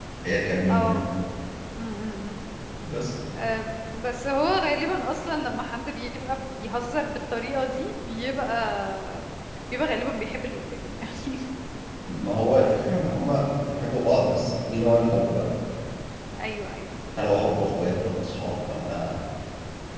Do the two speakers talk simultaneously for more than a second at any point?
No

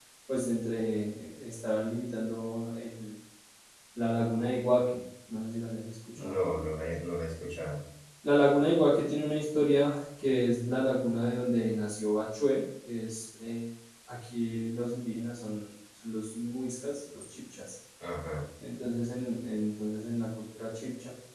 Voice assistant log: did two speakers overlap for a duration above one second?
No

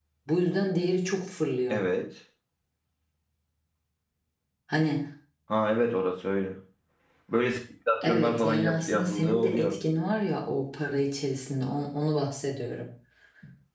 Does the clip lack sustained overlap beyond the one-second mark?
No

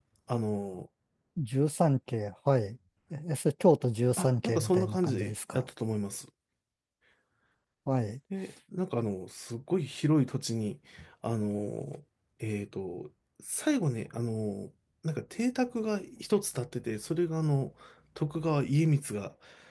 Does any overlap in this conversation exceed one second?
Yes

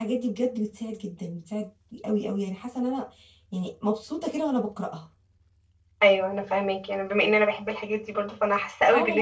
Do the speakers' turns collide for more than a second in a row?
No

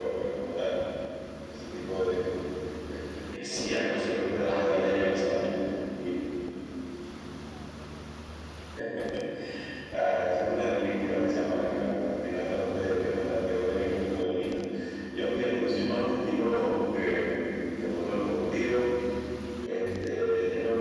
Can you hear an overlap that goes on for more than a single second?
Yes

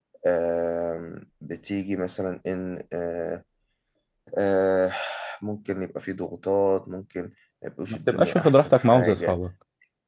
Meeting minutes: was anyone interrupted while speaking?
Yes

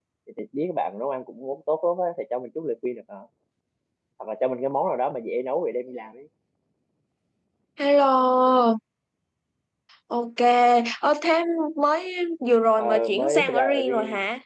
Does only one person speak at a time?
No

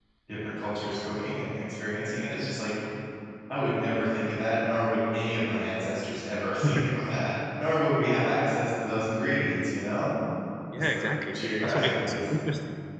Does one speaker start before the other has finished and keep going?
Yes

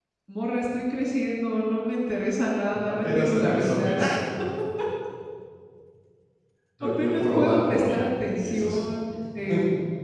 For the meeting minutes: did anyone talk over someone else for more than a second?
Yes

